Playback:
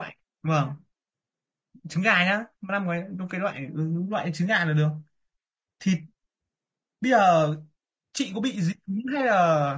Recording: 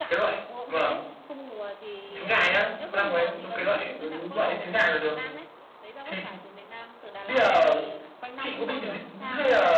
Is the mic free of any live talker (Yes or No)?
No